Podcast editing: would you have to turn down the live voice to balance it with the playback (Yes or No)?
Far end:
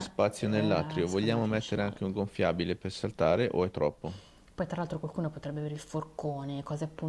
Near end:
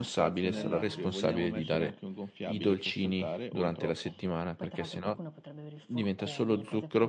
Yes